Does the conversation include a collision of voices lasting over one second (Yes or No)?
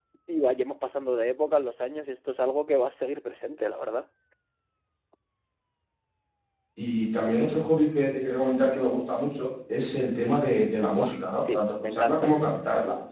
Yes